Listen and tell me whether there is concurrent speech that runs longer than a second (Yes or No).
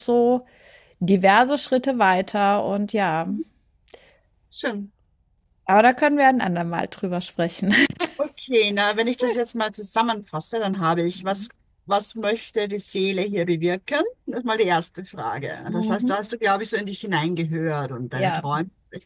No